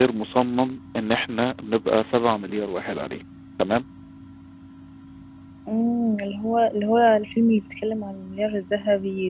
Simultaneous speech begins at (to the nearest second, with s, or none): none